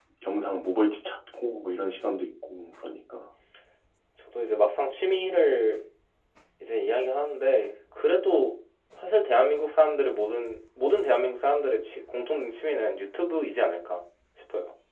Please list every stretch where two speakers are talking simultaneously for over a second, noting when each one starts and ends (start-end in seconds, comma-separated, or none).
none